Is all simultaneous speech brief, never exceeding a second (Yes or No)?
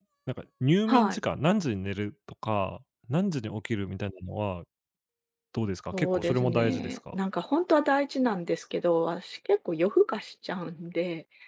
No